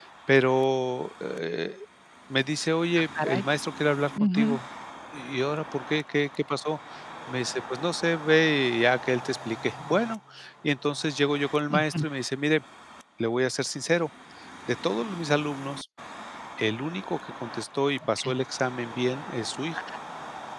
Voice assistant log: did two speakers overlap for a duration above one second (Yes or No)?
No